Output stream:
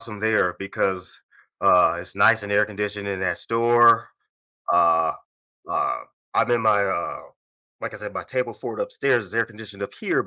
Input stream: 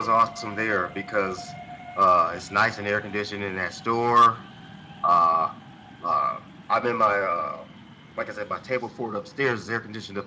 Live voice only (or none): none